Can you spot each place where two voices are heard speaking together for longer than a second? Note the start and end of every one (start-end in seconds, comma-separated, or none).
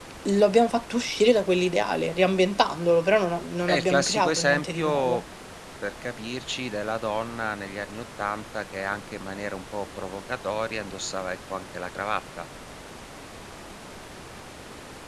3.7-5.2